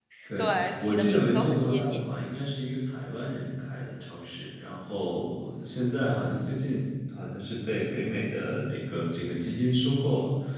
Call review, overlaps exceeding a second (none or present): present